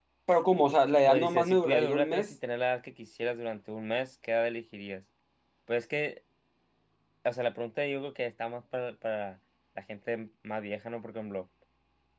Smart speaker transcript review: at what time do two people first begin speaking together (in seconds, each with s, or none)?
1.1 s